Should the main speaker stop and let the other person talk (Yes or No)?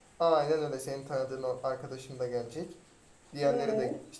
No